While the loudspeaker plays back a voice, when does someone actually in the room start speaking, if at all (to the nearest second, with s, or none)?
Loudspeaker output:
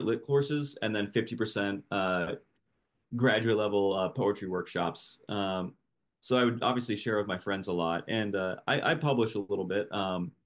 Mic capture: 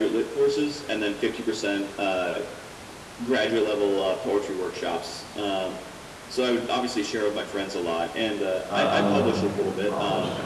9 s